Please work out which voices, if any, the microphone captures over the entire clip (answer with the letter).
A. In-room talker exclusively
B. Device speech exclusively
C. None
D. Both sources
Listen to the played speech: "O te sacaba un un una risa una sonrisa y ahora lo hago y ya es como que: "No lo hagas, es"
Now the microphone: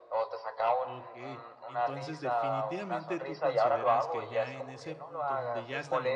D